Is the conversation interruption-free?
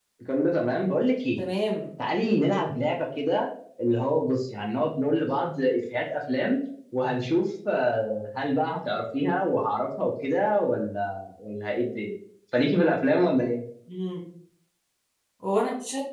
Yes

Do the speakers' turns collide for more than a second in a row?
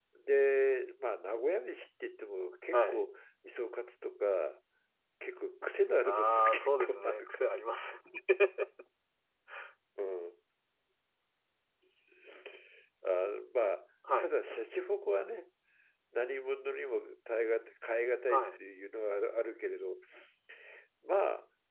Yes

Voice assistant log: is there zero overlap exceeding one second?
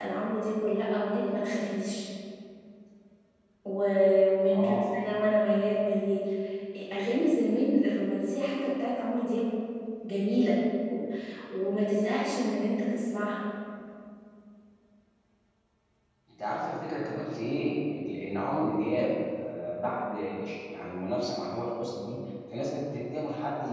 Yes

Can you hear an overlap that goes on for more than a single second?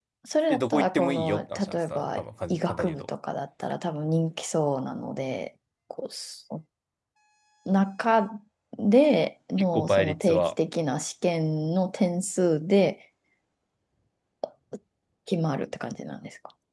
Yes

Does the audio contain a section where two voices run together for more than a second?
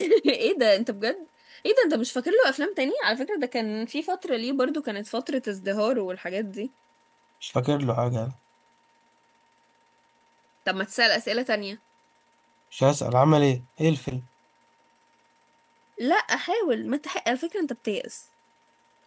No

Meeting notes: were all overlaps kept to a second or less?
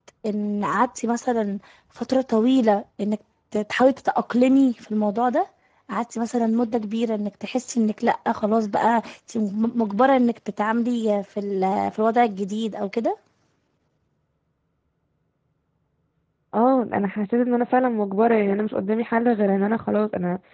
Yes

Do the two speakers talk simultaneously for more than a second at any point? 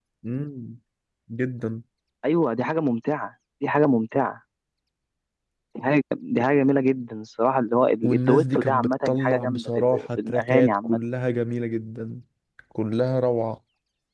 Yes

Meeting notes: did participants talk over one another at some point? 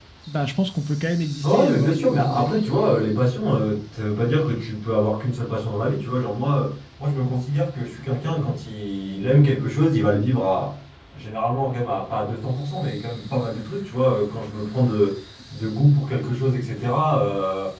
Yes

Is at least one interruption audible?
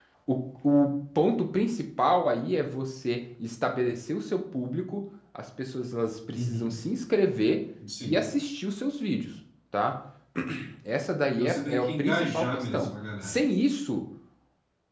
Yes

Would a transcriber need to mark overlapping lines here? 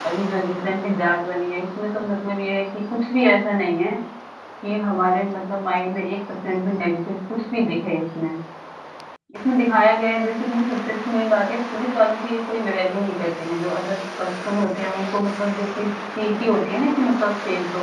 No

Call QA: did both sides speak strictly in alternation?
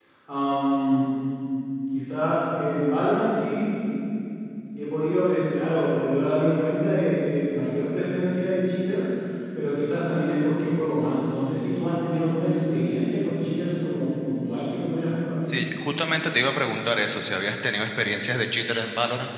Yes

